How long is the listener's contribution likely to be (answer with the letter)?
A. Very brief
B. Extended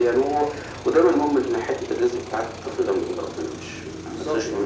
B